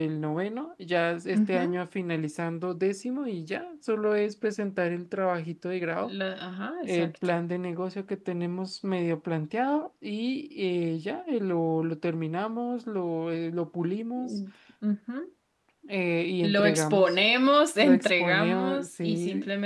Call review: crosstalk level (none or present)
present